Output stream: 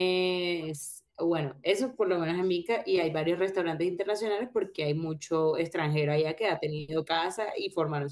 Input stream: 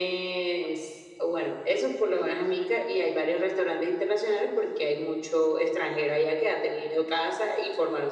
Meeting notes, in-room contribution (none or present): none